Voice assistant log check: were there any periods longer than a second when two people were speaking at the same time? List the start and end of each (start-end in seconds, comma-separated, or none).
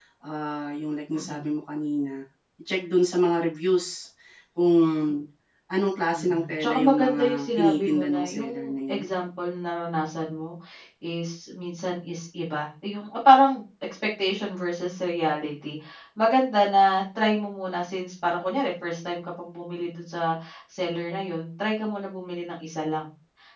6.2-9.0